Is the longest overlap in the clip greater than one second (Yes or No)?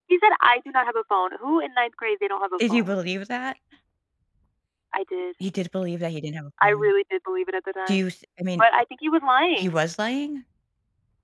No